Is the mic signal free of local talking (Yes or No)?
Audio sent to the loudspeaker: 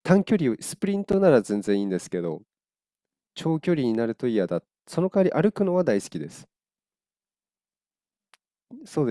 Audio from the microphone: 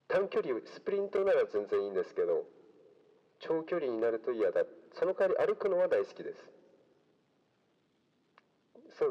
Yes